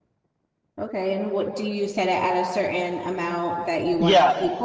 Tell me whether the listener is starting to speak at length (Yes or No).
Yes